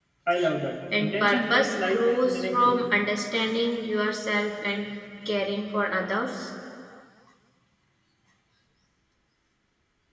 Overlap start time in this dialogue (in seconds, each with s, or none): 1.0 s